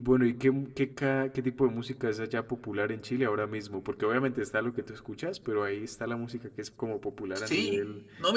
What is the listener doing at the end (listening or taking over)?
taking over